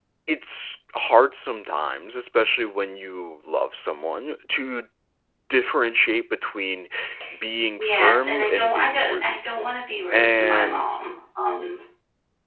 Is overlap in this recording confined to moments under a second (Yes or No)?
No